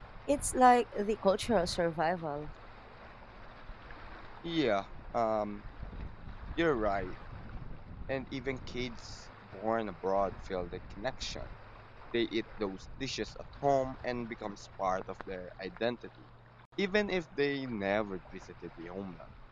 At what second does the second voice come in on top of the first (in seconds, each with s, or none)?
none